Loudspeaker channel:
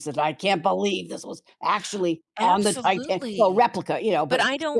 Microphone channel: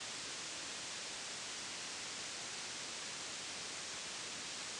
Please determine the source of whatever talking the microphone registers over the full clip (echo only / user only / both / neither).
neither